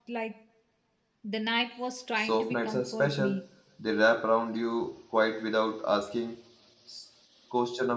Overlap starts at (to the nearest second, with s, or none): 2 s